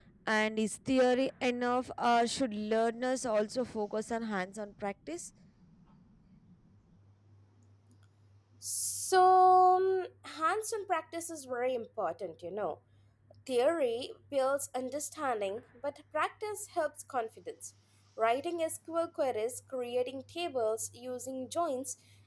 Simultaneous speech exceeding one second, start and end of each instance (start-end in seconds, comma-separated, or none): none